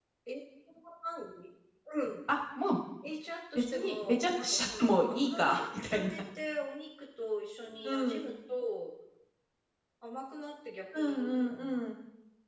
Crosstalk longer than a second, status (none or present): present